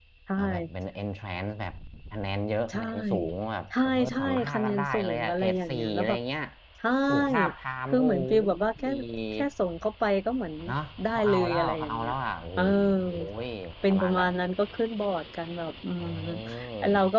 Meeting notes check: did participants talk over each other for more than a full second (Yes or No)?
Yes